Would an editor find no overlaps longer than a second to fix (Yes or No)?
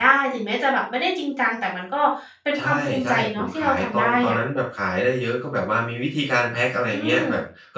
No